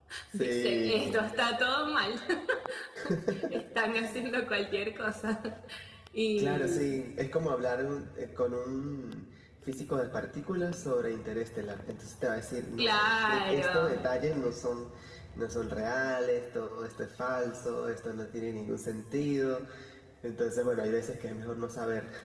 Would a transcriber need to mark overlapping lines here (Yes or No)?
Yes